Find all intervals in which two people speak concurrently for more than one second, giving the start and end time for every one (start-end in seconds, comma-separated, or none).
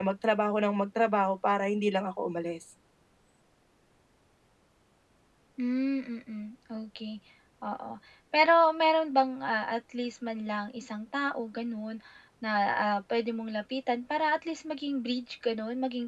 none